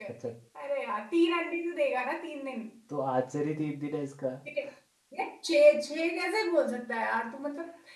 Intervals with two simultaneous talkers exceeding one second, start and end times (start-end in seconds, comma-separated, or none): none